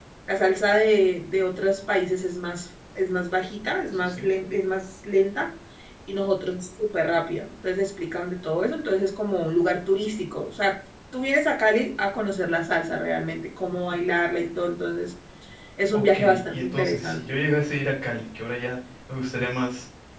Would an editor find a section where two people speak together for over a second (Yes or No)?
Yes